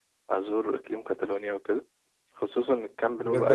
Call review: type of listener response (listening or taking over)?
taking over